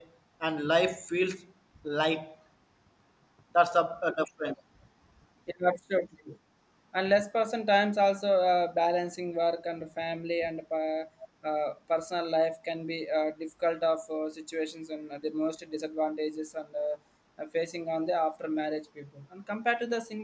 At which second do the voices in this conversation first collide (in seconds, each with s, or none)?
none